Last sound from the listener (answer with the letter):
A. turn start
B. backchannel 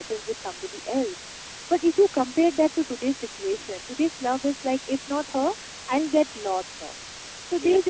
A